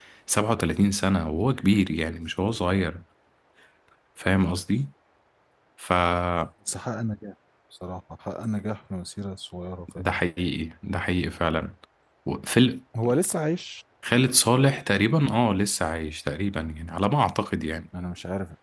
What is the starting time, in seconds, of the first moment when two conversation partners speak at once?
none

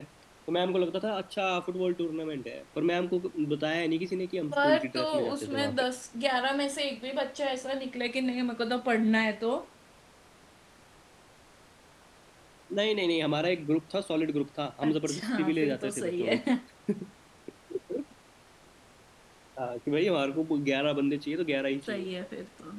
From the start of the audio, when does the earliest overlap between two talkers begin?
5 s

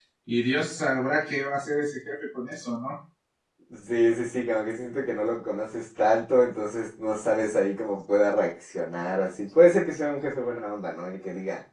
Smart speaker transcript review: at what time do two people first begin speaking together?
none

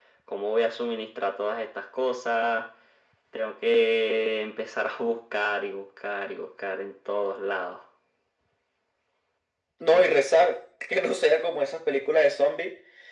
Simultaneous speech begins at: none

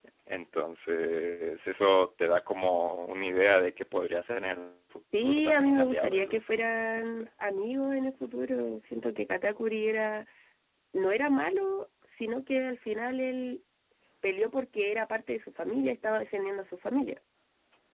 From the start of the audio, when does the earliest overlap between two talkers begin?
5 s

